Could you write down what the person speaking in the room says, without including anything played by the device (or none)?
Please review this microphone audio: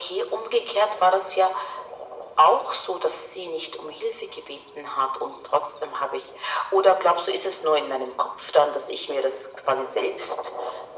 none